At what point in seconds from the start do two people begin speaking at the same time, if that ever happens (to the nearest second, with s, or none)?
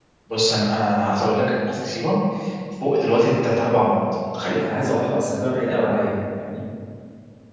none